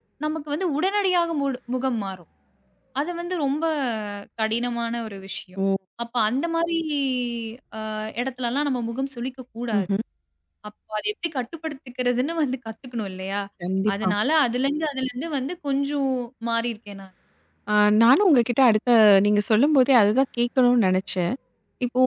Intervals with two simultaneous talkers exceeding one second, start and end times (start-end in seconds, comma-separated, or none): none